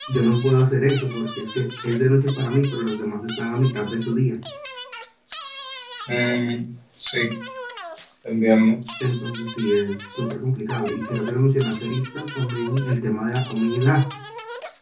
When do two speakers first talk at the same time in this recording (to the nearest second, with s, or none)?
none